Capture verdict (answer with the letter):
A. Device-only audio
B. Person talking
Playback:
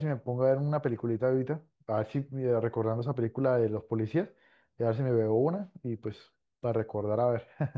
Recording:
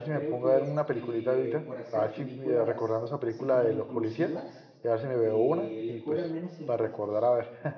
B